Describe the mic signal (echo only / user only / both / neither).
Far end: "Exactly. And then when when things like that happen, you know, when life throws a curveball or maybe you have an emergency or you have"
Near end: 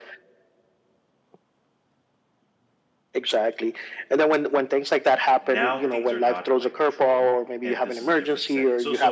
both